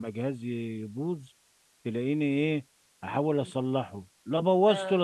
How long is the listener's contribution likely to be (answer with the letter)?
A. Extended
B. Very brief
B